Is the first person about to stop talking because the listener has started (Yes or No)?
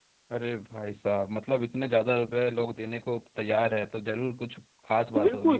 Yes